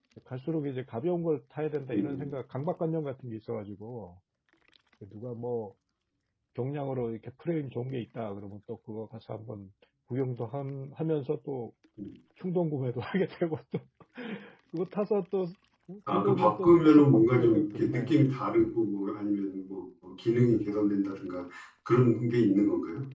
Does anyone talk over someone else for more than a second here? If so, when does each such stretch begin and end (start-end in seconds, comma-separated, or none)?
16.1-18.2